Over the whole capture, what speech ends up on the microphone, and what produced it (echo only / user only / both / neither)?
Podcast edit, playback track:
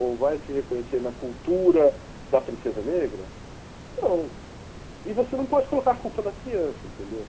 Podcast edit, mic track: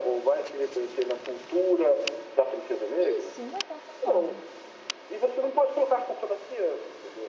both